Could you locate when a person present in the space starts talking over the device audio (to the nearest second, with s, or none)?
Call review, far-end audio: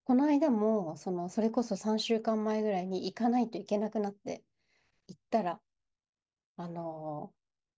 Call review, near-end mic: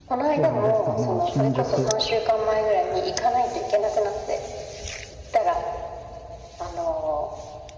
0 s